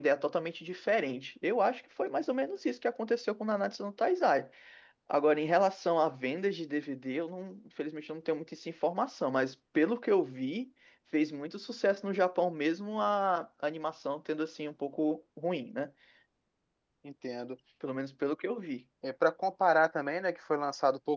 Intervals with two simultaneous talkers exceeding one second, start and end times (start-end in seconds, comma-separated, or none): none